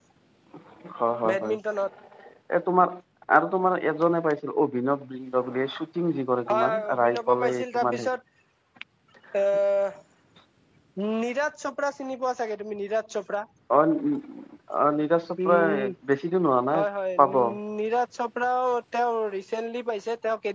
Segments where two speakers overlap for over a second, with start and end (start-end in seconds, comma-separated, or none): 6.5-8.1